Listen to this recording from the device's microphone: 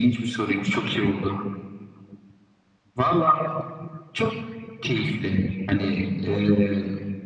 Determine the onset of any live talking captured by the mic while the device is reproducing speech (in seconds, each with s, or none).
none